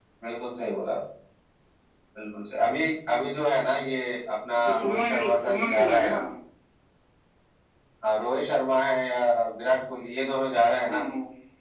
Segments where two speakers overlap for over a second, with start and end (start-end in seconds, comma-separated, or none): 4.6-6.2